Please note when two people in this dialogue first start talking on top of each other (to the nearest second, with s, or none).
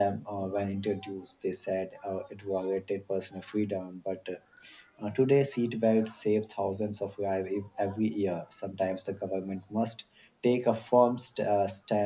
none